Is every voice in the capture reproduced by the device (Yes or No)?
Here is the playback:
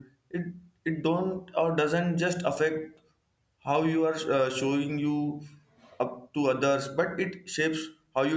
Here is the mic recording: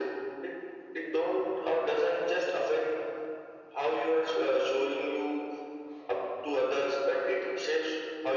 Yes